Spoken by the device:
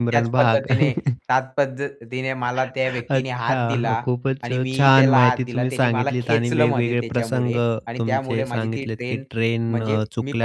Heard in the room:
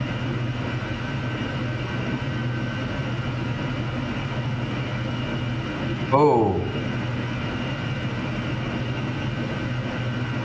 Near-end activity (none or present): present